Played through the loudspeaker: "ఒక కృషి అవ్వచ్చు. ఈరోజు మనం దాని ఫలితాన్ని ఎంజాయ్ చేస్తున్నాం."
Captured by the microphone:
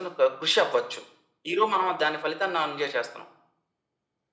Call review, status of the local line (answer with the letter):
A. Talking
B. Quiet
B